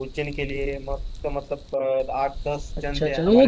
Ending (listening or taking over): taking over